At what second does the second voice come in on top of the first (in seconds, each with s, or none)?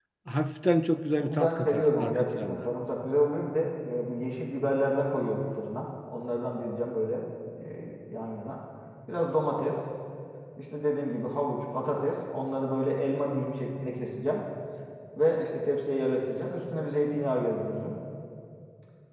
1.2 s